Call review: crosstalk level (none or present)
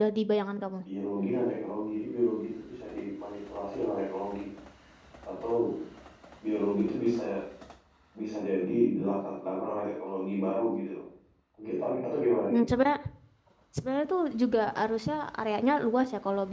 none